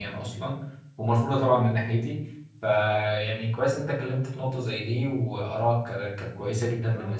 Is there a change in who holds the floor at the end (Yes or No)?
Yes